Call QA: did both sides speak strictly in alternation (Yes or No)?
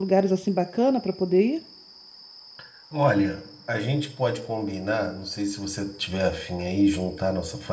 Yes